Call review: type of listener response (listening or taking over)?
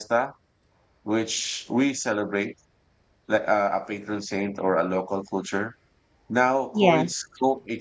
listening